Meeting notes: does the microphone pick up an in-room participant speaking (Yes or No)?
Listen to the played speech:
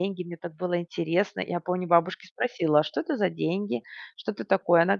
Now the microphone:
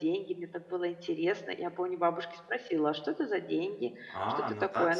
Yes